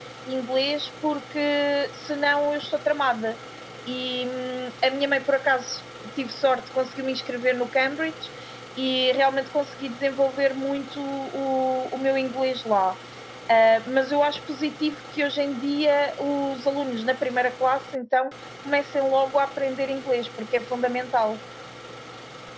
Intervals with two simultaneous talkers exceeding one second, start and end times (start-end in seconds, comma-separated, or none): none